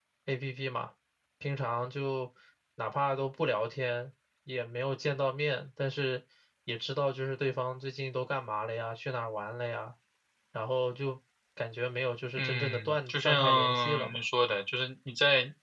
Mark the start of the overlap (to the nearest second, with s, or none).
12 s